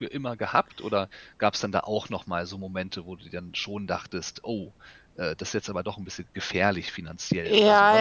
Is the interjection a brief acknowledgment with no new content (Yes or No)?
No